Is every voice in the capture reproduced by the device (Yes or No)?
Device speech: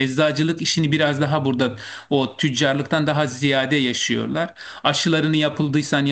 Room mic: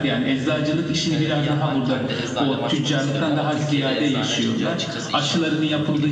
No